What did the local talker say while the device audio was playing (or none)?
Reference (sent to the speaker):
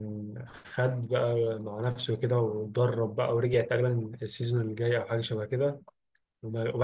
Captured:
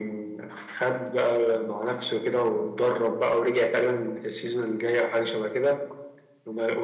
none